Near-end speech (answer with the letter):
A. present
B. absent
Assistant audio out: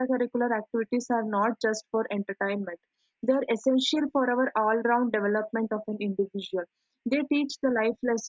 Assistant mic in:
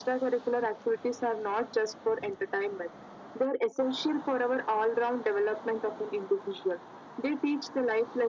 B